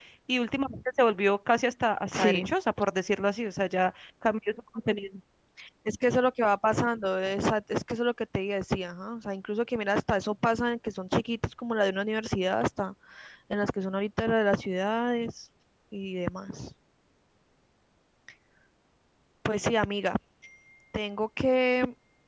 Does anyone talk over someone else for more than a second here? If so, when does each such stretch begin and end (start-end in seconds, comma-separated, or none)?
none